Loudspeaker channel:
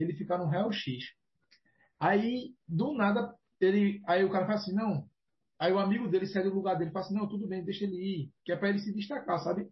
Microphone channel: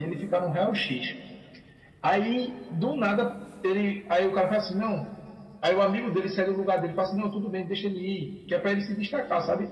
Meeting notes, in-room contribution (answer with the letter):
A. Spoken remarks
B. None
B